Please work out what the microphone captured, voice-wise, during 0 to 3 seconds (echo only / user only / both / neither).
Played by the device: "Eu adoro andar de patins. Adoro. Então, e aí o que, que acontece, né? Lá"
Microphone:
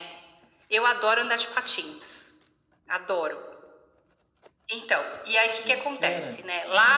echo only